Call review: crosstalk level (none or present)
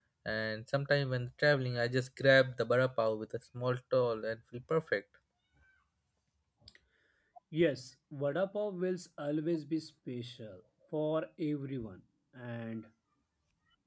none